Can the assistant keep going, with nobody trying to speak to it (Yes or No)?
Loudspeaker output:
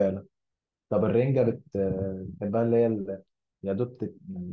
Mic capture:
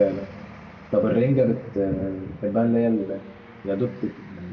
Yes